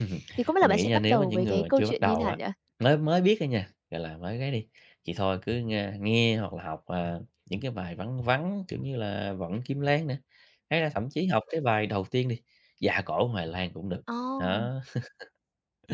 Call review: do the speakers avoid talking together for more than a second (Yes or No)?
No